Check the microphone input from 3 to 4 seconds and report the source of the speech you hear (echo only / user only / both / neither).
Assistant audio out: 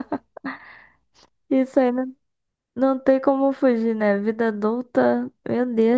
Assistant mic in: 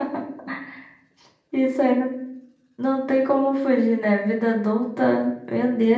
echo only